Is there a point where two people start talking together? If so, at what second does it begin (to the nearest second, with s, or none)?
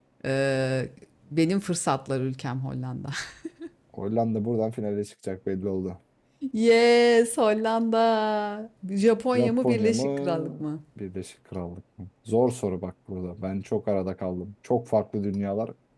9 s